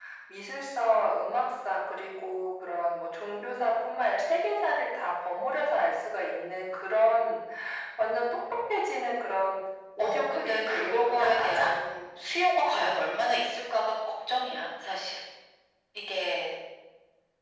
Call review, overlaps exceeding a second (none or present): present